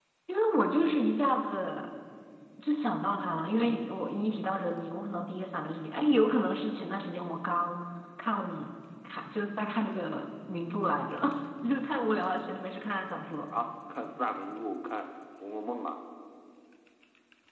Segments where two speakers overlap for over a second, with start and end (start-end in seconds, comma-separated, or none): none